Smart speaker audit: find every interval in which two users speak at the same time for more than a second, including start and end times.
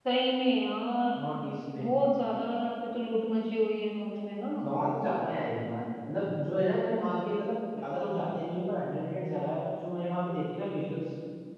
none

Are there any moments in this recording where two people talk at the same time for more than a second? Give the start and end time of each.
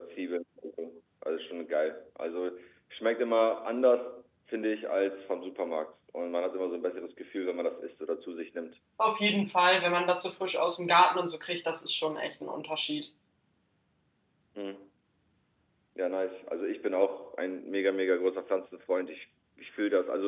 none

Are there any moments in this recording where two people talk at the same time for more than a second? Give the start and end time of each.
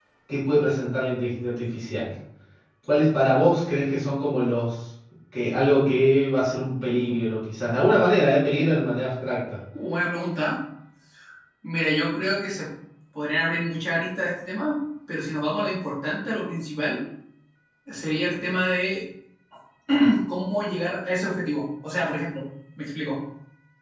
none

